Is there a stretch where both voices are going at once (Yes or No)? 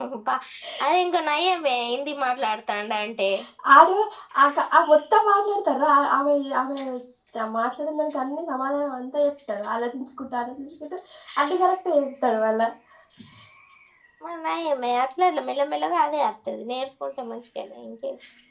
No